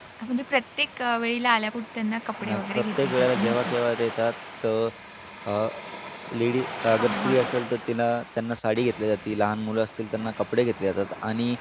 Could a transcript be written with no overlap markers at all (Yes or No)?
No